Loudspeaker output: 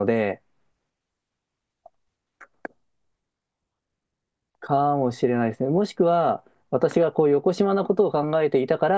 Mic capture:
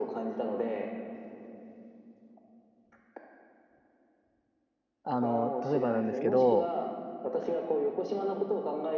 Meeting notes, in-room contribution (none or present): present